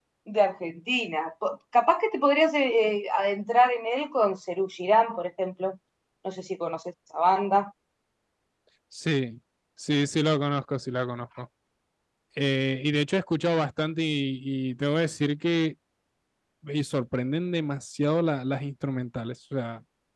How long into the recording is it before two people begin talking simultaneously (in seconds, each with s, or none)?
none